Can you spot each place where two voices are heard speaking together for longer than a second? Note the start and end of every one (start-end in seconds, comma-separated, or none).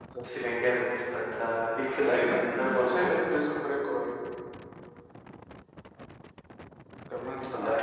1.9-3.3